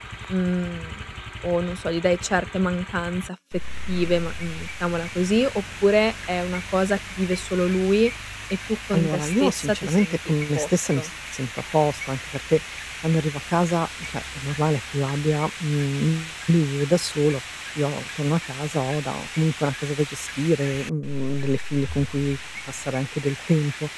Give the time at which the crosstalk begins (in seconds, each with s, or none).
8.9 s